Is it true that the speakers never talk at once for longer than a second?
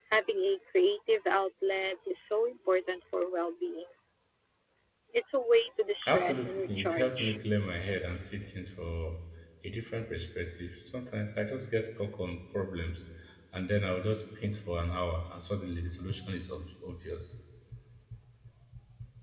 No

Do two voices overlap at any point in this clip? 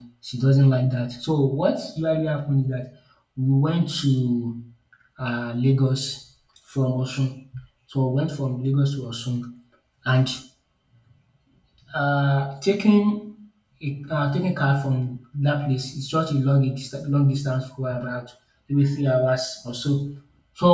No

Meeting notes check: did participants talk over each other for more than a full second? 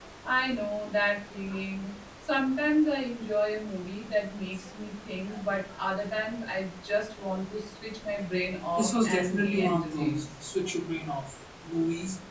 Yes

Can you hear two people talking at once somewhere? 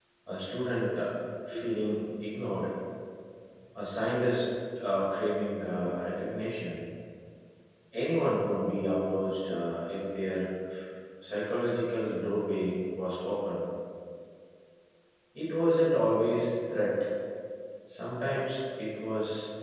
No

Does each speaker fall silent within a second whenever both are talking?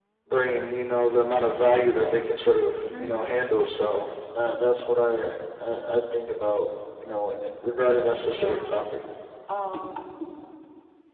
Yes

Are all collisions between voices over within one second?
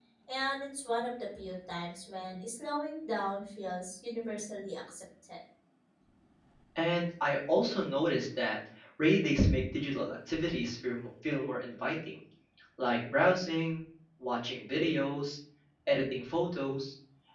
Yes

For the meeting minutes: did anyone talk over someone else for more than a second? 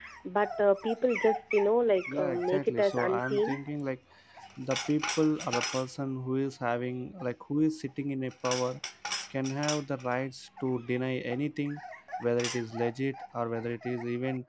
Yes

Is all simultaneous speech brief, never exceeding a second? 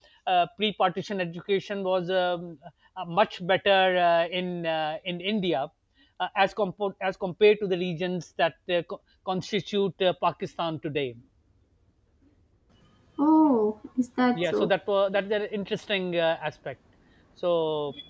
Yes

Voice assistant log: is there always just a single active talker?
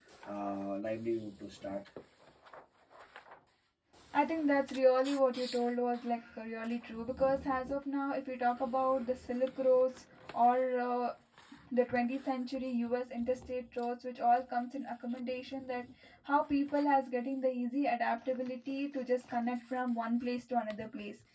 Yes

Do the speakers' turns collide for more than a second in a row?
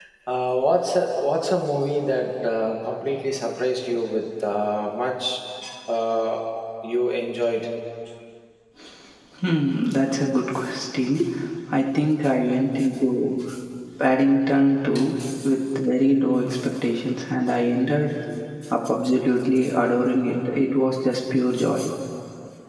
No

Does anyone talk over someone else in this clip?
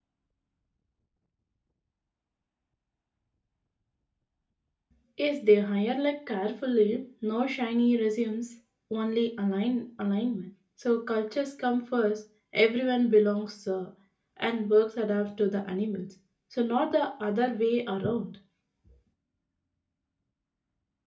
No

